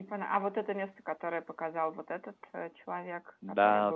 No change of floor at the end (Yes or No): No